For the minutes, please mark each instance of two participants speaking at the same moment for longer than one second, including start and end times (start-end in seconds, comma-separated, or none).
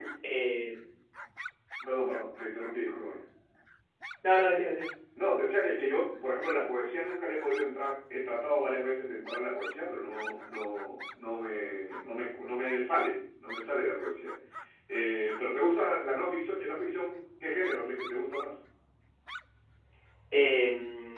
none